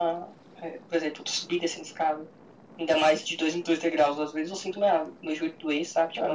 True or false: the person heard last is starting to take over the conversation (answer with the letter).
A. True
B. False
A